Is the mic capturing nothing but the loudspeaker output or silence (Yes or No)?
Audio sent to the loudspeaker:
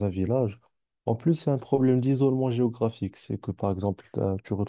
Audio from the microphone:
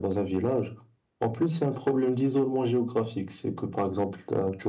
Yes